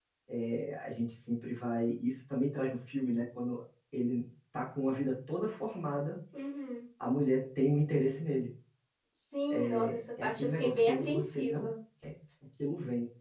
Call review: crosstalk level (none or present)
present